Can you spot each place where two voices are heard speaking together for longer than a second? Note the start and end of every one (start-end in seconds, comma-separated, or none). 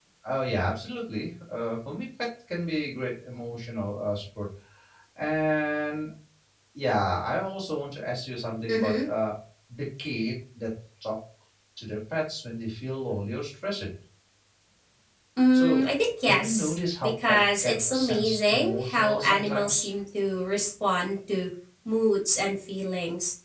16.3-19.9